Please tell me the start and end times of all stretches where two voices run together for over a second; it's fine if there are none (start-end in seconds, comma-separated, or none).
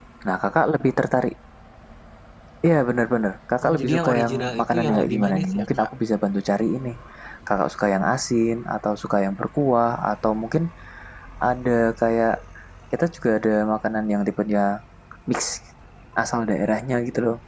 3.6-5.9